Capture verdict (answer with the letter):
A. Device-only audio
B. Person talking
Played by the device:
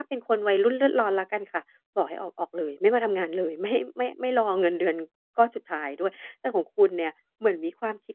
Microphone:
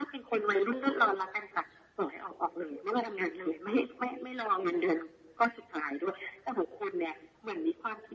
A